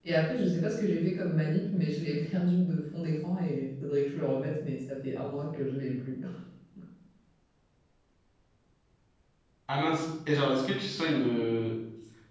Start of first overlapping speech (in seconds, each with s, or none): none